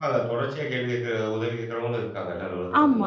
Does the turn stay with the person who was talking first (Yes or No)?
No